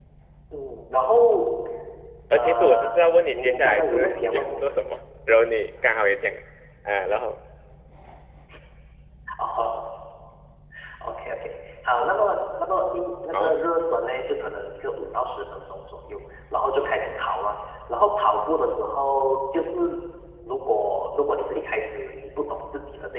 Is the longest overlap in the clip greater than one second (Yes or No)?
Yes